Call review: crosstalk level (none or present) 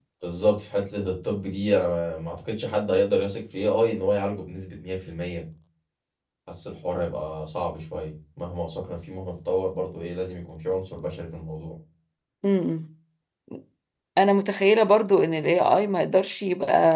none